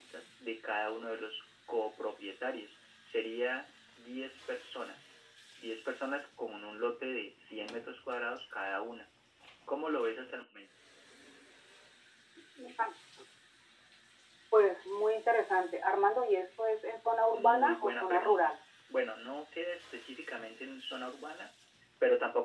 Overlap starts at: 17.3 s

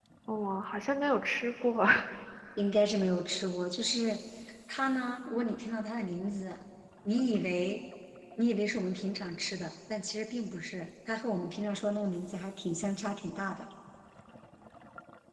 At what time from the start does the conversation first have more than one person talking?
none

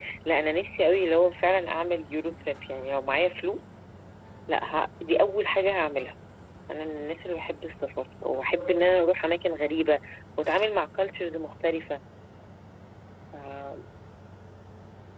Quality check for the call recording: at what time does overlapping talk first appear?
none

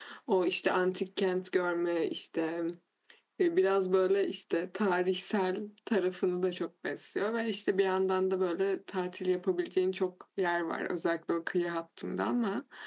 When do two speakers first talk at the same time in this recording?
none

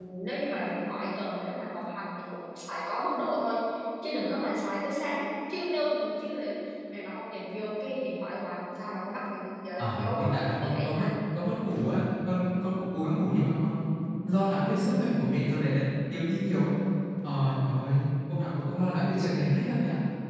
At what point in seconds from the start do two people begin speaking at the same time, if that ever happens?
9.8 s

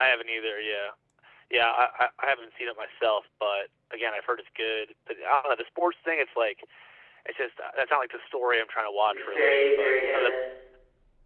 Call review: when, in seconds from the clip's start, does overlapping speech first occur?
9.0 s

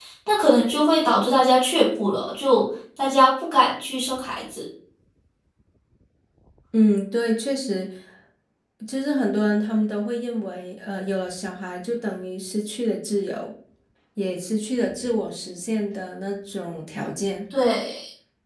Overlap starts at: none

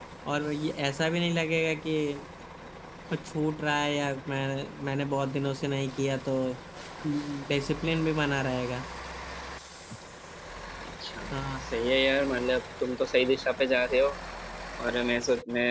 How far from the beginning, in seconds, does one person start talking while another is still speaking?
none

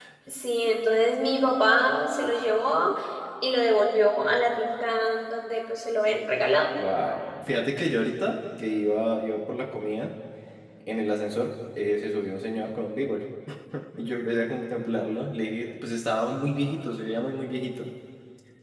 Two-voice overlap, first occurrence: none

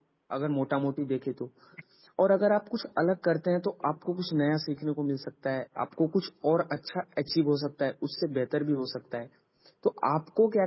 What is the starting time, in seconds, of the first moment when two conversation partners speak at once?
none

